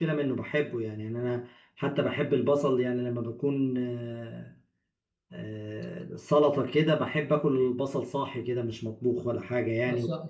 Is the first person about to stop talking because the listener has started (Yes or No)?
Yes